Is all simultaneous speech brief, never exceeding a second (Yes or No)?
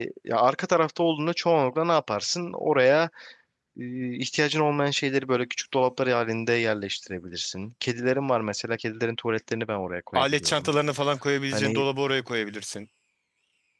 Yes